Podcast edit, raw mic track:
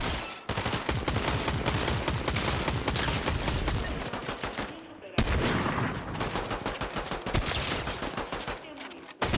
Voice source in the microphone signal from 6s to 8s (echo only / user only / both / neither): neither